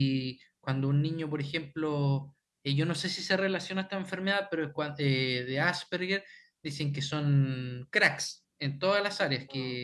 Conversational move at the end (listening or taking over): listening